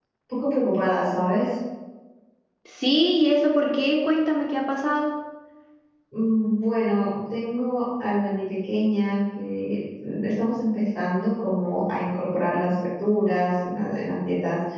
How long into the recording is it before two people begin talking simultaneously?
none

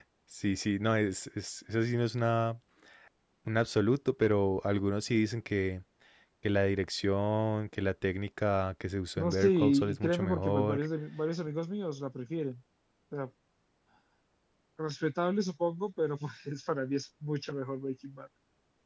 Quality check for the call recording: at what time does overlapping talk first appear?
9.2 s

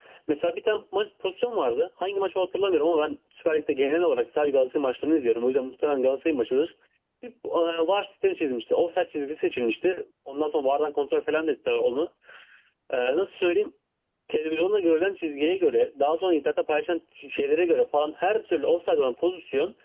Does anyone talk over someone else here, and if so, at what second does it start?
none

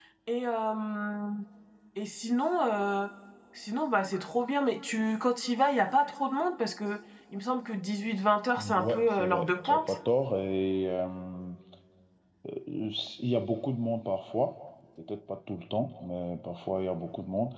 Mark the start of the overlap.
8.6 s

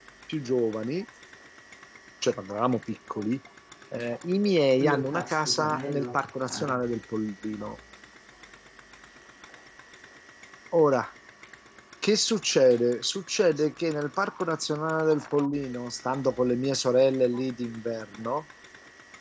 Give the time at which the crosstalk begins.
4.8 s

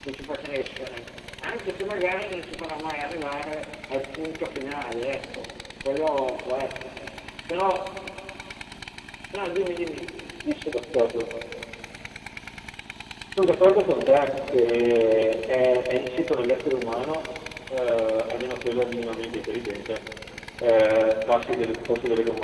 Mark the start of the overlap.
none

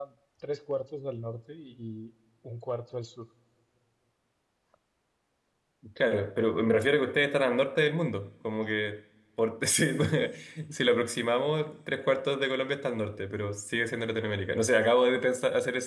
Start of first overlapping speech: none

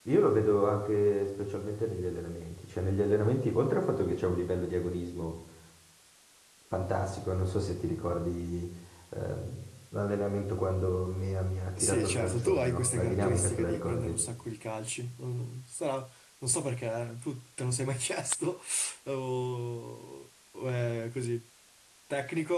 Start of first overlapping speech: 11.8 s

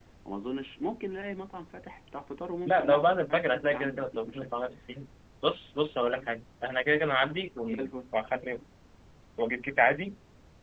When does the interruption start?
2.6 s

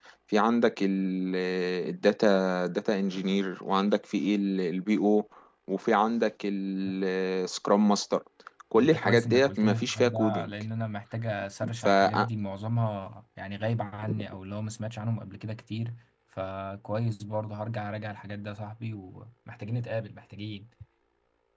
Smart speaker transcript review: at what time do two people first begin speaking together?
8.8 s

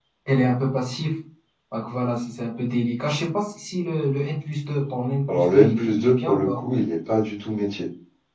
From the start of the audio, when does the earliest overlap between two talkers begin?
5.3 s

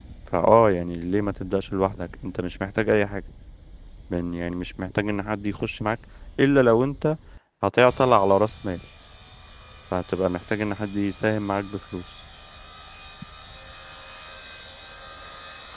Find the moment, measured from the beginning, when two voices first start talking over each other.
none

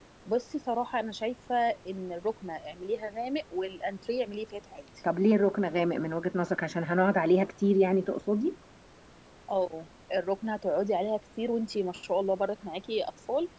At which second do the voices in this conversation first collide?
none

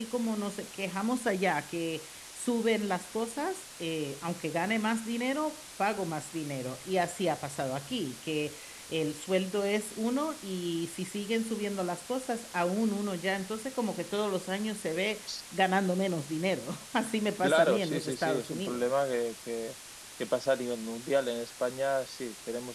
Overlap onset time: 17.4 s

